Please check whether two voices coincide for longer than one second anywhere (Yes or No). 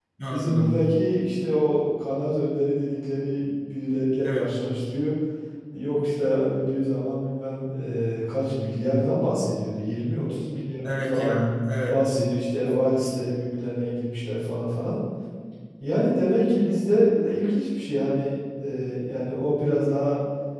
No